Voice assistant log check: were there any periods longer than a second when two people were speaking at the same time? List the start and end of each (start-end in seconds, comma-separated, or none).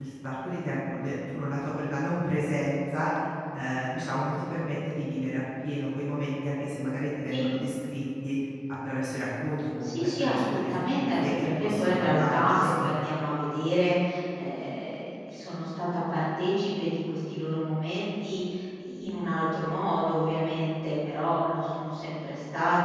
9.8-12.9